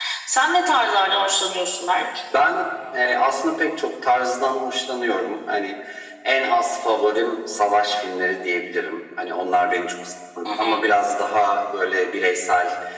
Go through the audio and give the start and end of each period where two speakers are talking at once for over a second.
none

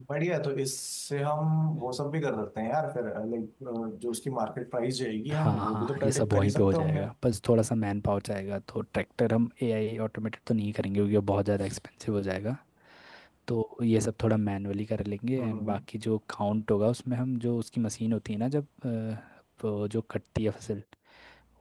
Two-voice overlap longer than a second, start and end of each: 5.3-7.1

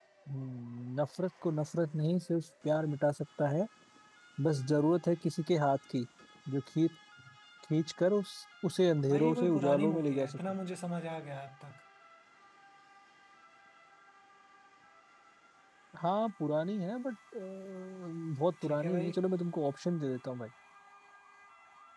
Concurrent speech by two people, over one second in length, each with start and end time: 9.1-10.4

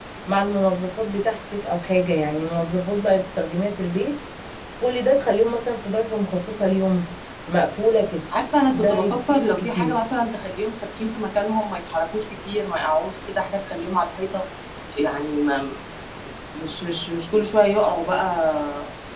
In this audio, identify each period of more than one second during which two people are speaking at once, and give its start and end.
8.7-10.0

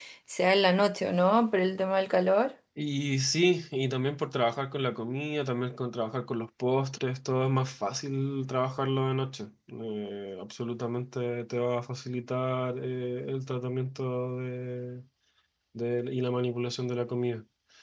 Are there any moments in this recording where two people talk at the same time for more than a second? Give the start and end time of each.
none

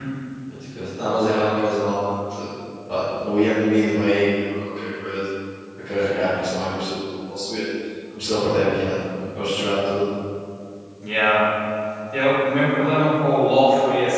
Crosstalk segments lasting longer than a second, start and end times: none

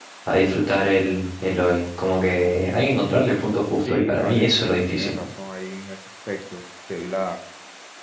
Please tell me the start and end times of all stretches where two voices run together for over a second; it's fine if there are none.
3.8-5.2

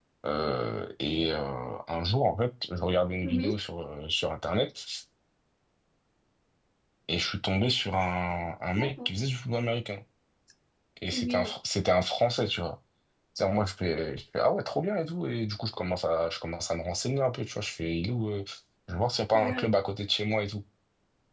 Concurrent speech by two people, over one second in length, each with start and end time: none

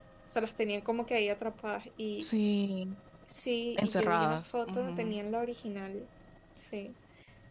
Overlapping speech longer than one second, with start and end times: 3.8-5.2

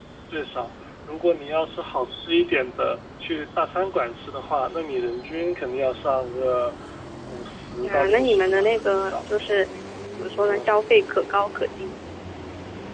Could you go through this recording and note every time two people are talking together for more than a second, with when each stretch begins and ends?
7.8-9.2

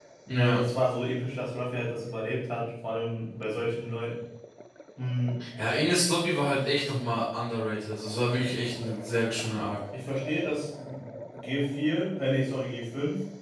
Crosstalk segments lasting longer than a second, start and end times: none

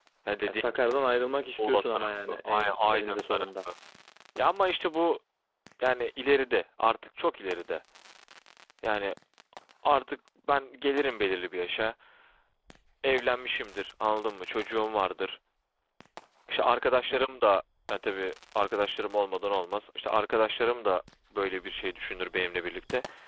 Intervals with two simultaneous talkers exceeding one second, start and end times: 1.6-3.5

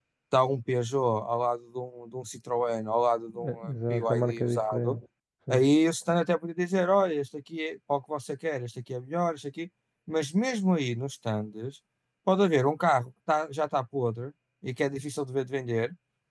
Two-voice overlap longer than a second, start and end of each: 3.4-5.0

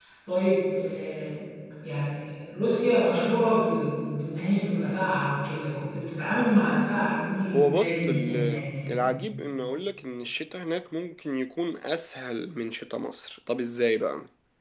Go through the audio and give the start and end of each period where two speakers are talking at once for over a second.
7.5-9.1

